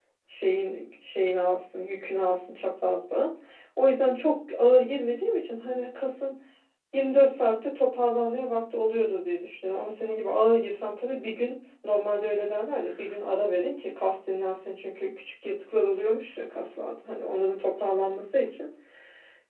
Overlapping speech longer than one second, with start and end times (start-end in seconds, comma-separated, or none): none